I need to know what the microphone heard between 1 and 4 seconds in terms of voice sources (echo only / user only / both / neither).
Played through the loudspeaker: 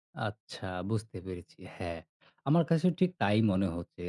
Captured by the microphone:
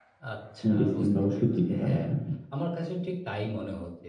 both